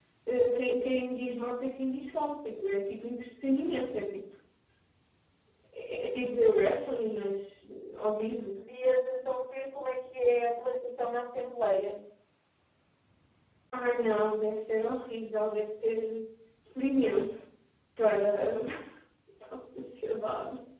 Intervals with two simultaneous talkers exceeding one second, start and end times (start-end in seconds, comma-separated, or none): none